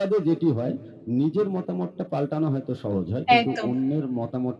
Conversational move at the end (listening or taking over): listening